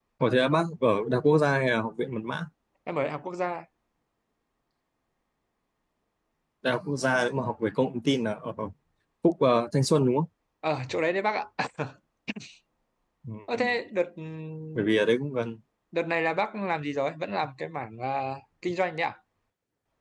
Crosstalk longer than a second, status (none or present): none